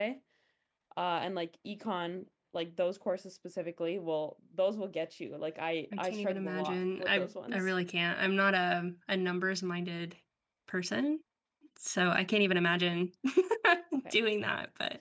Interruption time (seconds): 5.9 s

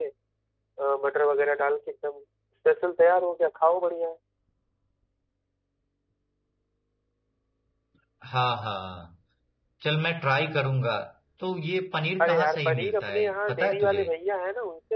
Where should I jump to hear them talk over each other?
12.2 s

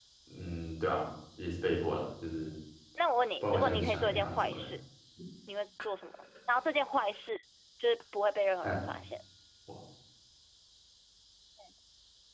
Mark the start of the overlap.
3.4 s

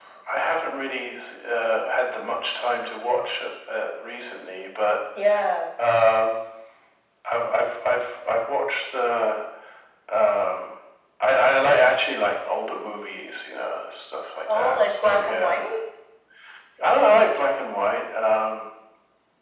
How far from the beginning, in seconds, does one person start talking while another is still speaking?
14.5 s

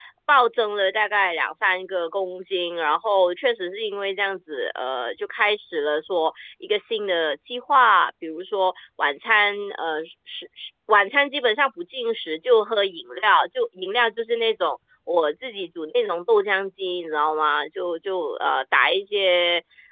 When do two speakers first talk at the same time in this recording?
none

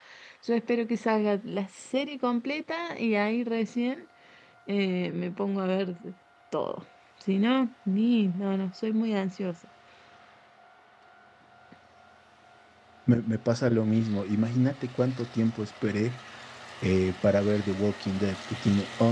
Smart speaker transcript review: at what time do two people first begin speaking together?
none

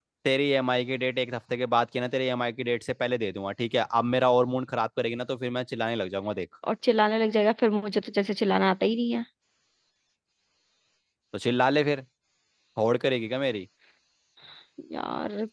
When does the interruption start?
none

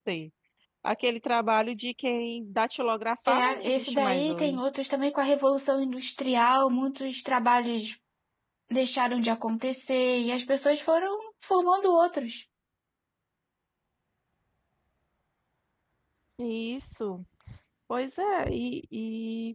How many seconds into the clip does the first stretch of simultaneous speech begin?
3.3 s

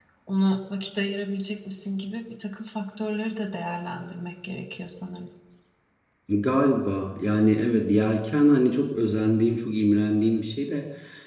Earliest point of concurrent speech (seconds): none

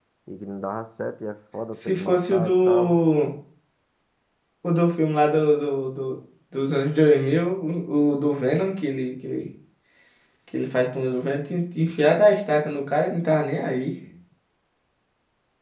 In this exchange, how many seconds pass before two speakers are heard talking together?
1.8 s

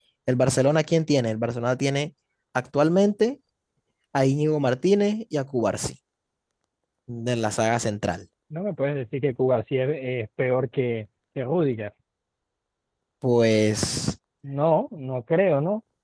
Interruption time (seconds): none

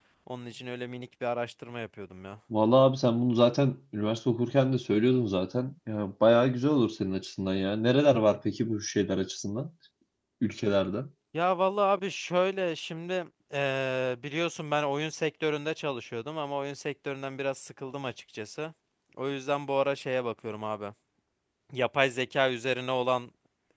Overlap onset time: none

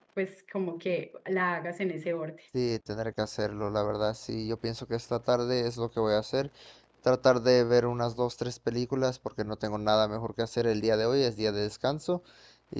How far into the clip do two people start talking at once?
none

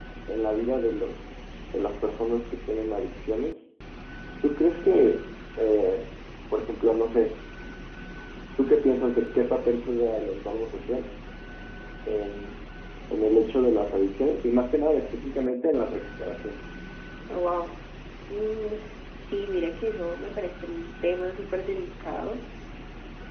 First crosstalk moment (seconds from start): none

